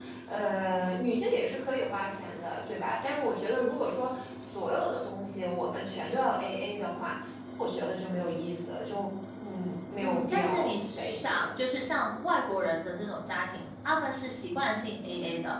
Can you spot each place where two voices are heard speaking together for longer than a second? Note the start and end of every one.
10.0-11.5

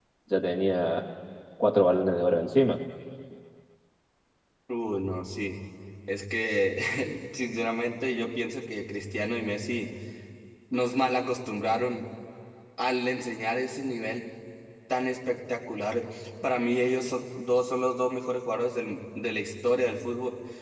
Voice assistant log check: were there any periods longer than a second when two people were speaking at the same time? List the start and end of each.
none

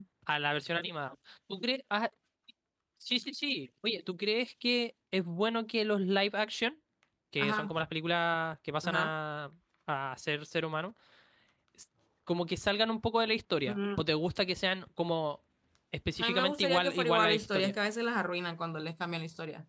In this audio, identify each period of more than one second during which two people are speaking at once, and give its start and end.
16.2-17.7

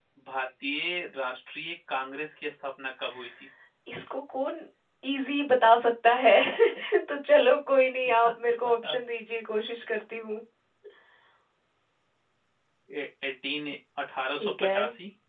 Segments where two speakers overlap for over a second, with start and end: none

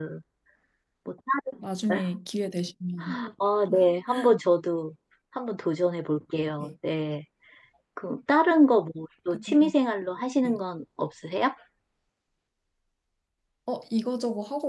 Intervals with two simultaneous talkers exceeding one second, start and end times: none

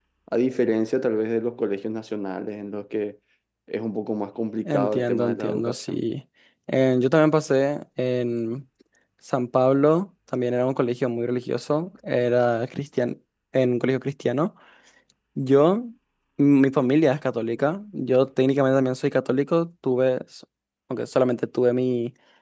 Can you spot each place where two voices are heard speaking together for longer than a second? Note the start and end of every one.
4.7-6.0

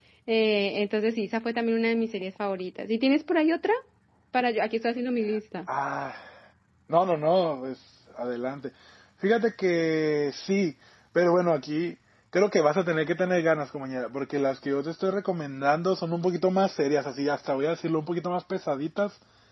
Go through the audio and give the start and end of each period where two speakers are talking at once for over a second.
none

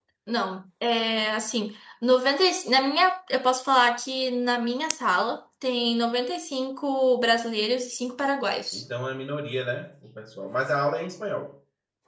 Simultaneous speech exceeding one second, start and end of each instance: none

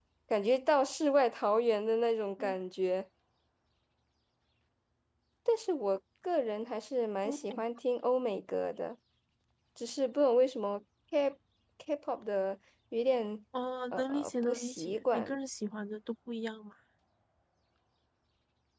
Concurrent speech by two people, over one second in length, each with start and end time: 13.9-15.4

